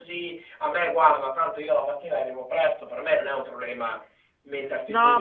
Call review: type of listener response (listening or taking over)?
taking over